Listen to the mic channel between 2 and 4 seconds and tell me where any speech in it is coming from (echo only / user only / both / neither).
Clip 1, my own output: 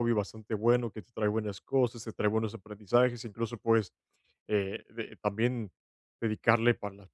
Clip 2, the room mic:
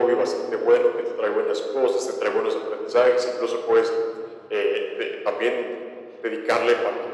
echo only